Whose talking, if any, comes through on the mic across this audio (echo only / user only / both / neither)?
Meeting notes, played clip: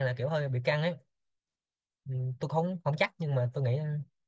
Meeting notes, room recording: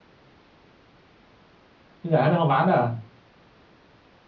user only